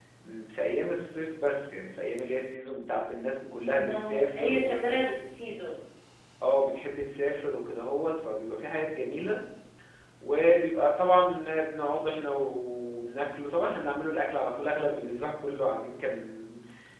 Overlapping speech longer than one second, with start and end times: 3.8-5.2

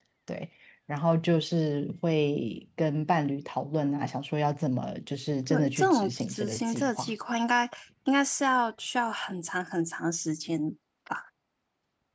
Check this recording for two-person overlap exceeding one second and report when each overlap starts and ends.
5.5-7.1

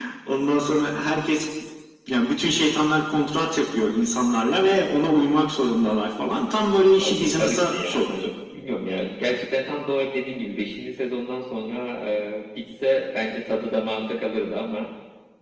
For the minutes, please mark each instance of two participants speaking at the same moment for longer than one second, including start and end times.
7.0-8.3

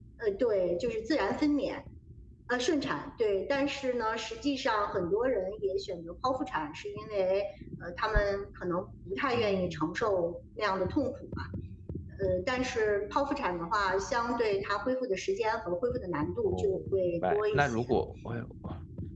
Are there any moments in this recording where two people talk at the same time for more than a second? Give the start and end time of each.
16.4-17.8

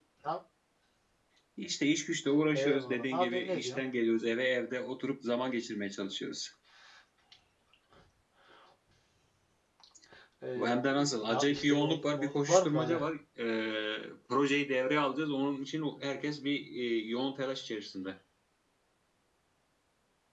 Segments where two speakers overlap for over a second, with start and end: 2.5-3.8, 10.6-13.0

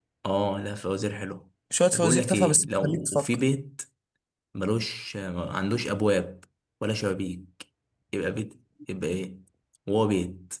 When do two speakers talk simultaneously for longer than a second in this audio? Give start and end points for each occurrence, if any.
1.9-3.4

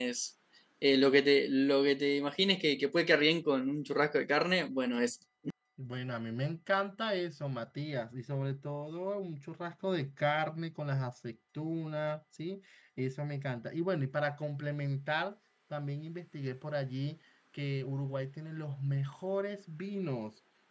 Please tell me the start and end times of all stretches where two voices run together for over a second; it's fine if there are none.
none

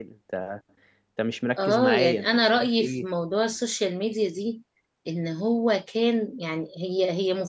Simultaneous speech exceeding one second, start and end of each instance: 1.6-3.0

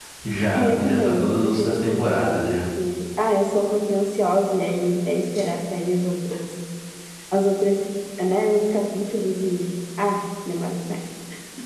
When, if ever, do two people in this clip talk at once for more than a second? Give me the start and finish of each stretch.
0.5-2.6

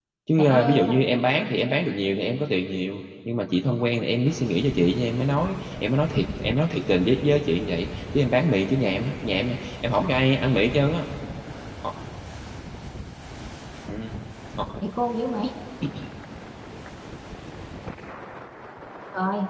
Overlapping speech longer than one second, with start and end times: none

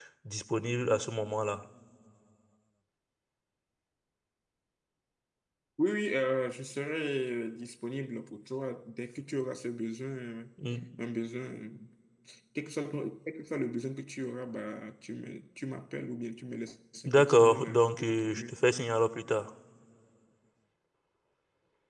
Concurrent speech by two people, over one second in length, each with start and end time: 17.1-18.5

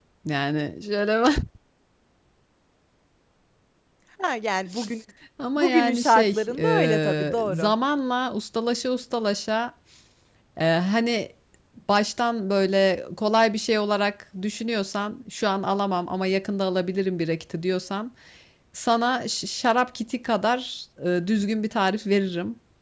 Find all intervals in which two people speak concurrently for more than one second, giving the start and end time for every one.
5.6-7.7

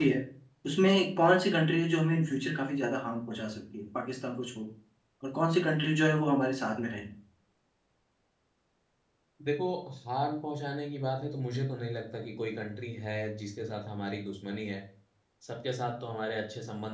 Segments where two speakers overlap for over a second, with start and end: none

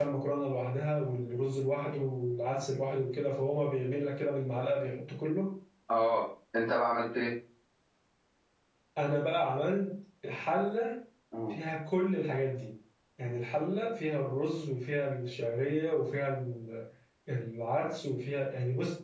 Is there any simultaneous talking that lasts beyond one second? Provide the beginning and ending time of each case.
none

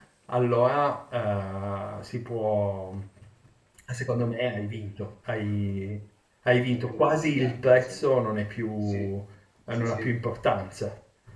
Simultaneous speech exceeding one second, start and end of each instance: 6.7-8.0

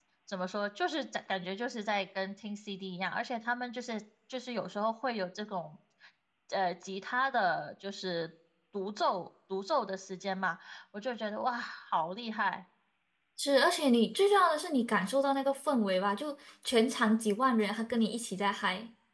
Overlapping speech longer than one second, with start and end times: none

